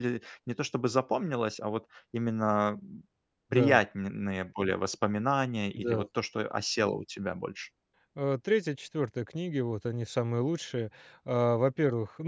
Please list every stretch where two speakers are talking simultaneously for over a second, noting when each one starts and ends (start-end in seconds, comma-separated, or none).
none